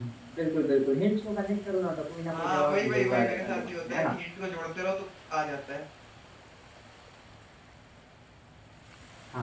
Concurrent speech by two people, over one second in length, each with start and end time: 2.3-4.1

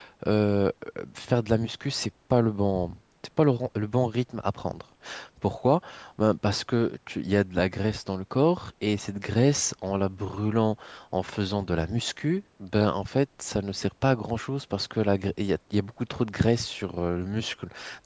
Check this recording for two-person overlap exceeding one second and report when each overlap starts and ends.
none

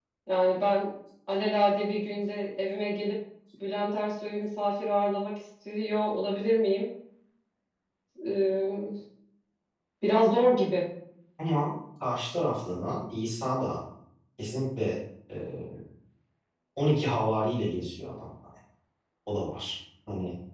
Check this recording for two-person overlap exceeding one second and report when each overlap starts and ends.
none

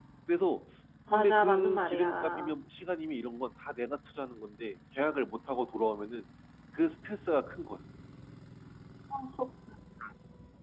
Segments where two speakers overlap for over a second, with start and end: 1.1-2.5

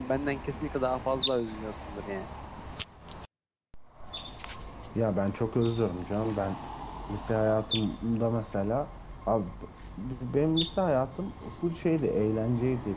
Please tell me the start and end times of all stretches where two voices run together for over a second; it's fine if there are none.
none

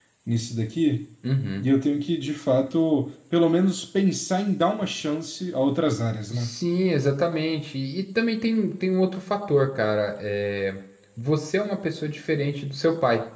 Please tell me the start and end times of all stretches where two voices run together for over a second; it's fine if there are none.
none

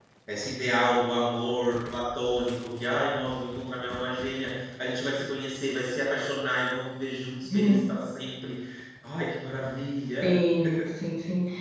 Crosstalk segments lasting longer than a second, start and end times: none

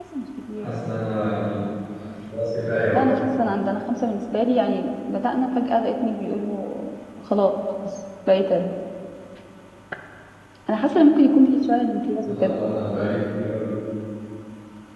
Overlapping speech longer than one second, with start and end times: none

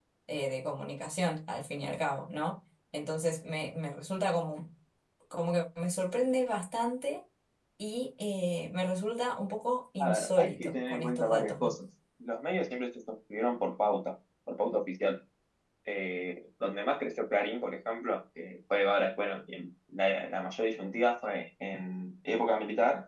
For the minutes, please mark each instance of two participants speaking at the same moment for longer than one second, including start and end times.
10.0-11.7

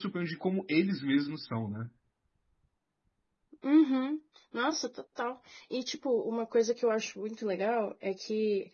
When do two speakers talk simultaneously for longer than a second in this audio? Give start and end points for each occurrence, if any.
none

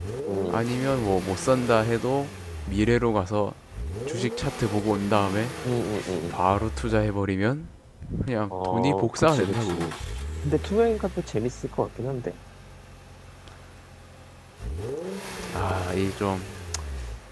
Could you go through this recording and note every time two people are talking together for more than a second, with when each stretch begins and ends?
8.5-9.7

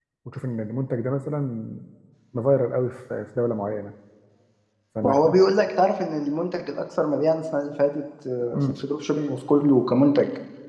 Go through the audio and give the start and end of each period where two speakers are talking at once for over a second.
none

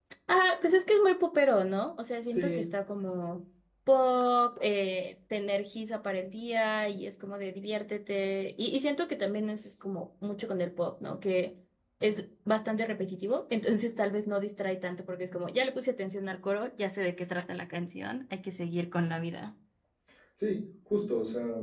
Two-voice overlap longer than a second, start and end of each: none

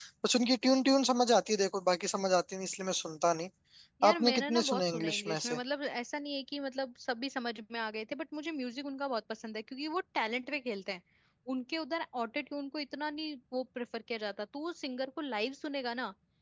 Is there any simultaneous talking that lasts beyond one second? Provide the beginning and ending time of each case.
4.1-5.6

